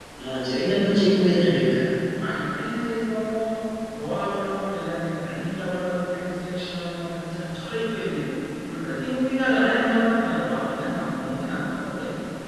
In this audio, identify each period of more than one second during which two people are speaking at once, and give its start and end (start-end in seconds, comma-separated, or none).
none